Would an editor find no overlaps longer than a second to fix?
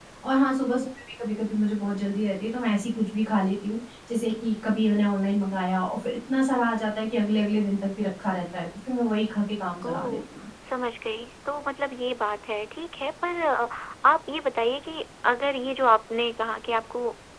Yes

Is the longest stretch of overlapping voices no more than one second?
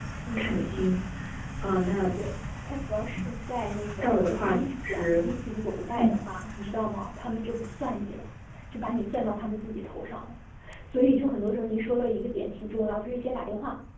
No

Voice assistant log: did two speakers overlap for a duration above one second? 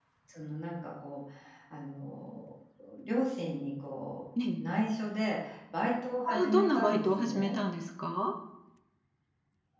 Yes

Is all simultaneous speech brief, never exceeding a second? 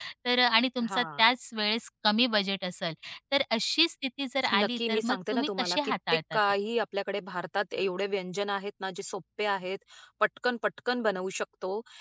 No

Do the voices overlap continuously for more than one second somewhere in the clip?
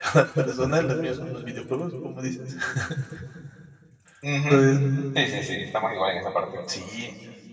No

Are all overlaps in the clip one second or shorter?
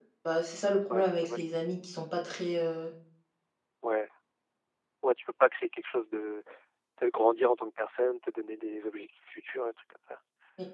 Yes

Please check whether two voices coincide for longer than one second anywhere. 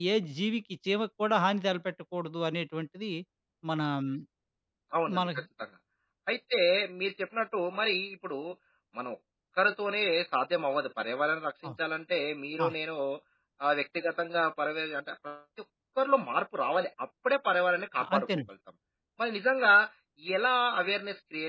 No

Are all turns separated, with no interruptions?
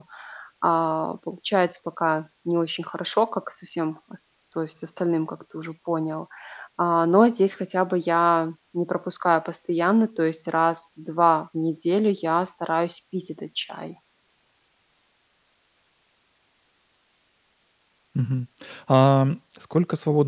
Yes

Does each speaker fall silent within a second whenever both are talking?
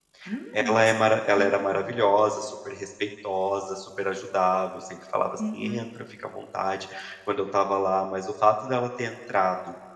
No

